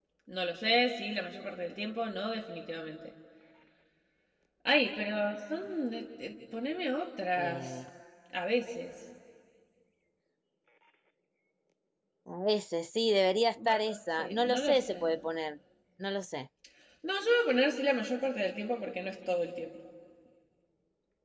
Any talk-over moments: Yes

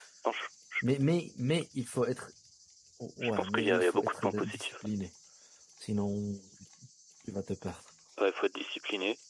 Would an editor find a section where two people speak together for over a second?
Yes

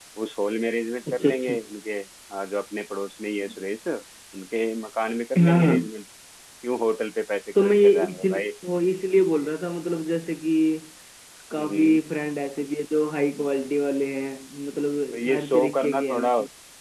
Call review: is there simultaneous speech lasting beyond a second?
Yes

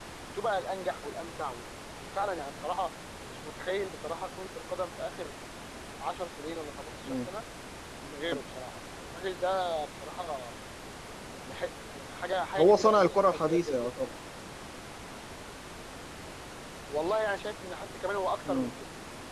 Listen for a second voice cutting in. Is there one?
Yes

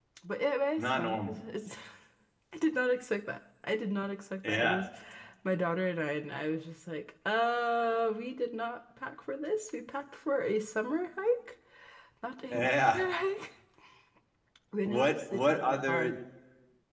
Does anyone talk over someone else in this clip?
Yes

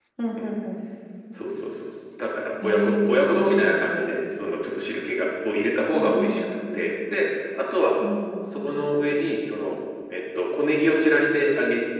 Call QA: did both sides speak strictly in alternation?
No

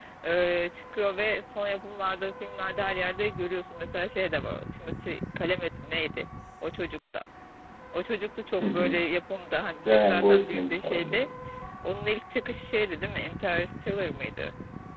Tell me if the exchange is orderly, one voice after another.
No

